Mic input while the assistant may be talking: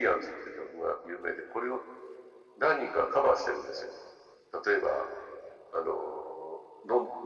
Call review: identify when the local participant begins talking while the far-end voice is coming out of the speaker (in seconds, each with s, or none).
none